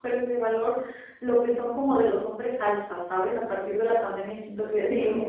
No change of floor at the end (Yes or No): Yes